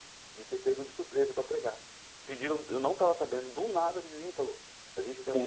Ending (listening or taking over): listening